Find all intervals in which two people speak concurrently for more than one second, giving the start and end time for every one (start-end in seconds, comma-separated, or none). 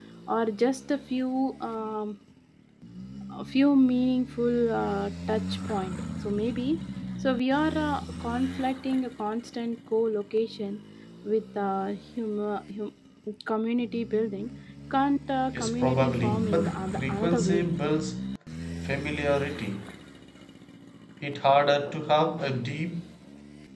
15.5-17.7